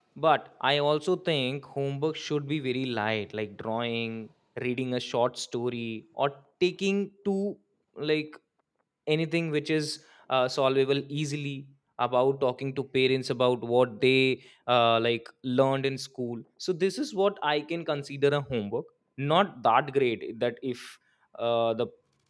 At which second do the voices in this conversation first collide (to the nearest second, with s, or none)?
none